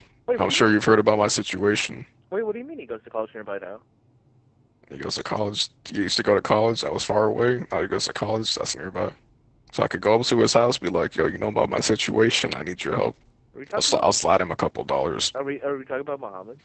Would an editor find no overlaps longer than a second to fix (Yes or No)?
Yes